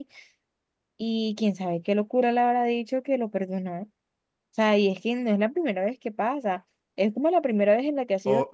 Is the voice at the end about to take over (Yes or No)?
Yes